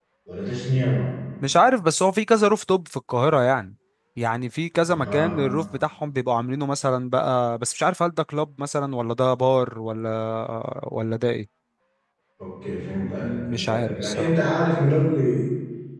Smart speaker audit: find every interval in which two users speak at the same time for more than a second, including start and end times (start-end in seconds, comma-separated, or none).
13.0-14.3